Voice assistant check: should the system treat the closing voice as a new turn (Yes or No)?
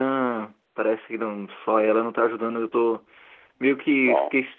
No